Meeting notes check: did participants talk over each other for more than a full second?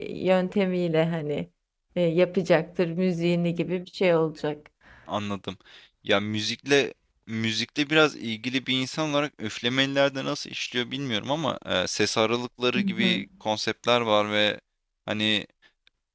No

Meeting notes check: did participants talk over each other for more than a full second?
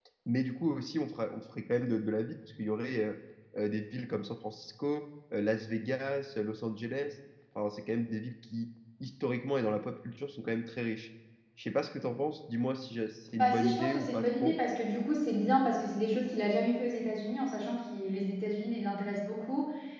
Yes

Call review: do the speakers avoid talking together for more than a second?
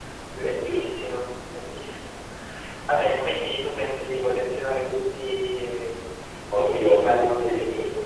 No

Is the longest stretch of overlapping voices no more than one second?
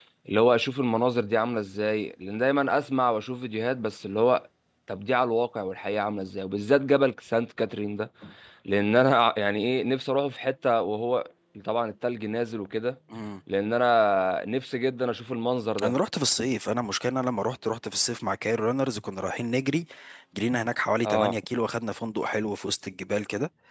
Yes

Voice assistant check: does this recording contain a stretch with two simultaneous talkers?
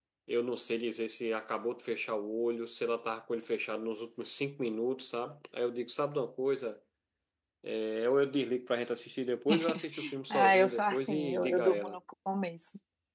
Yes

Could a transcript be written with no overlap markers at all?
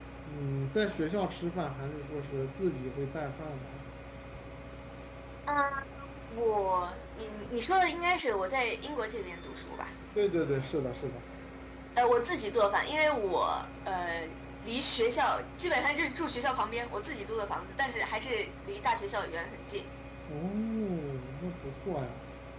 Yes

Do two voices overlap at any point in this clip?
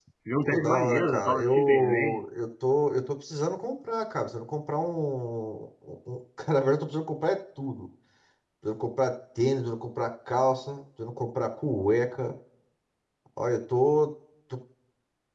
Yes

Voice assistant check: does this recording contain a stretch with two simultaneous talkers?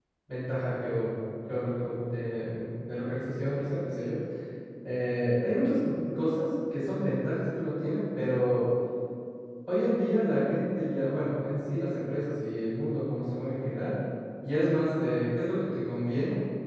No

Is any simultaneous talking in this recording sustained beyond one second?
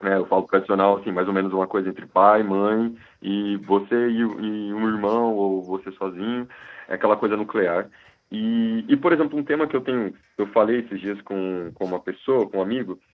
No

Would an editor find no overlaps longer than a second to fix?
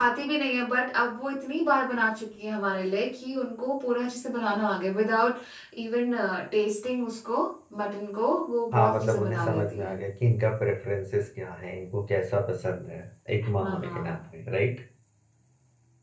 No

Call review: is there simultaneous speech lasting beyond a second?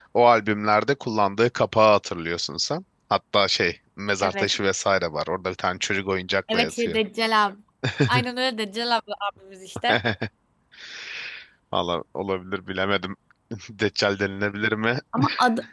No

